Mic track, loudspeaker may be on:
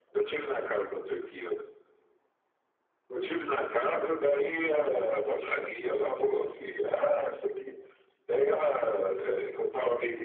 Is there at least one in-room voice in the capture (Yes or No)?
No